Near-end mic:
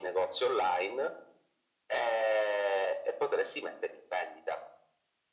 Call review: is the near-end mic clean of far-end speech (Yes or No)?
No